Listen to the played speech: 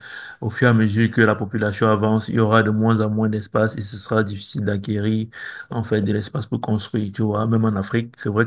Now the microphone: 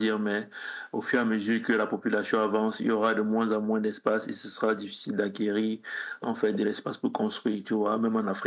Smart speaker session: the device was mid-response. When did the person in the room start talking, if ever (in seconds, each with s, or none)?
none